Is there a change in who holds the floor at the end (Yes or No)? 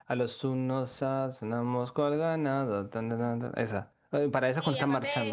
Yes